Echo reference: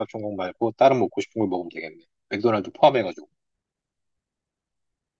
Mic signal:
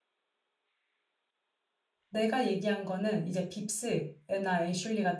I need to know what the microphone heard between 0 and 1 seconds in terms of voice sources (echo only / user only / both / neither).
neither